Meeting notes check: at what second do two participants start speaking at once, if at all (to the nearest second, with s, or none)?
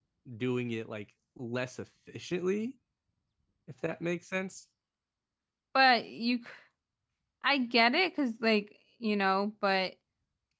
none